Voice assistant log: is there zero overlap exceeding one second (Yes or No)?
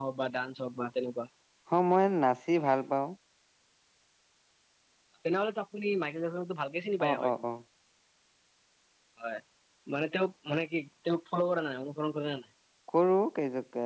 Yes